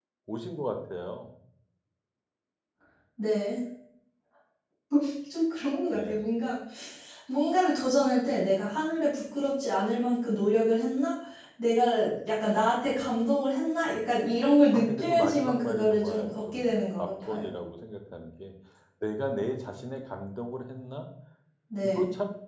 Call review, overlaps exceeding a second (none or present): present